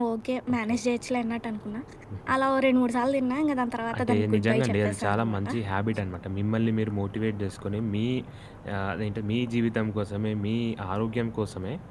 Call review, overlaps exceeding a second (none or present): present